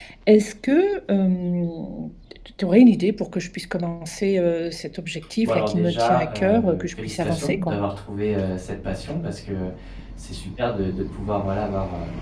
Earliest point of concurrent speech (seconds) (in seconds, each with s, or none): 5.4 s